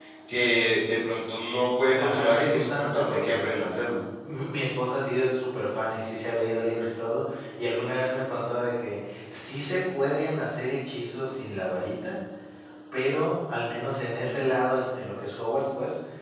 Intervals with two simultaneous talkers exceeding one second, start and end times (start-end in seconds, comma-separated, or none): 1.8-3.5